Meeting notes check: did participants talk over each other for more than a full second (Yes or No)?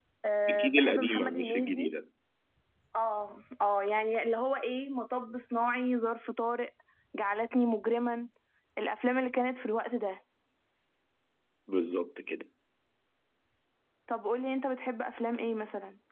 Yes